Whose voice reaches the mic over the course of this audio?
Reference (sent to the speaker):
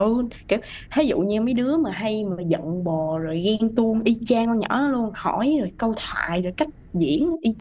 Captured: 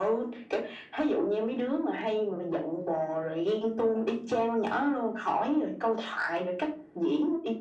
echo only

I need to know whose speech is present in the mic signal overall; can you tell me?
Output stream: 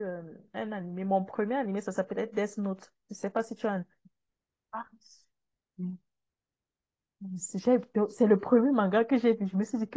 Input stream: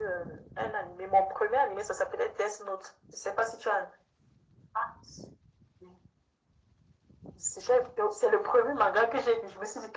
echo only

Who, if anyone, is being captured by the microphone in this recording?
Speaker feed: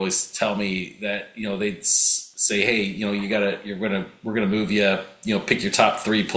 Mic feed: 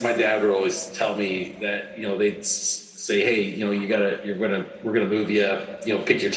echo only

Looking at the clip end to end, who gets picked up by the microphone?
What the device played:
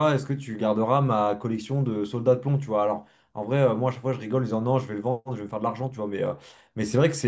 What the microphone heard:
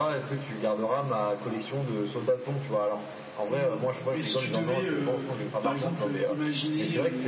both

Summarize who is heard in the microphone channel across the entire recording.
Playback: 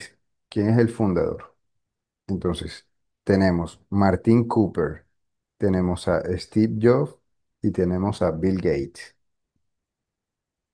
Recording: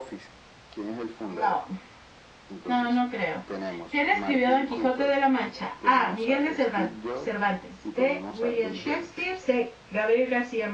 both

